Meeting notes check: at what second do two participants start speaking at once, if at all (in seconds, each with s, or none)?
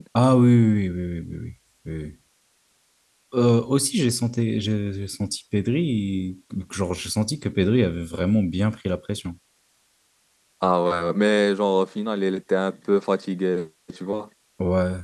none